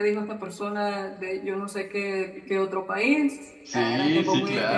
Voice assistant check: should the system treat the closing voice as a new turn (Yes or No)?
Yes